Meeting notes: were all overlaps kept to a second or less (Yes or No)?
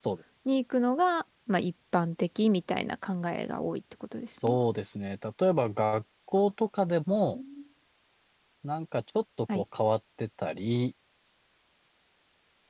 Yes